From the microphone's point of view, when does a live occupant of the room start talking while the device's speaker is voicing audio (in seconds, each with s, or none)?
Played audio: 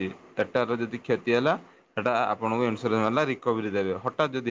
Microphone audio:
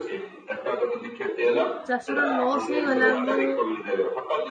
1.9 s